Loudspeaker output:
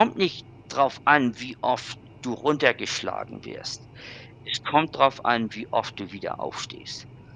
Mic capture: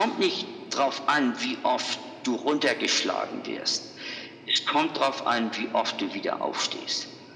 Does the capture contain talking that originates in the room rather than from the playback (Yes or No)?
No